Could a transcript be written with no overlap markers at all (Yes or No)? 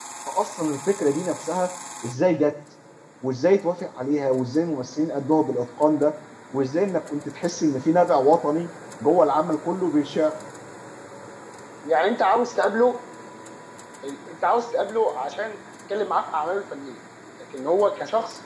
Yes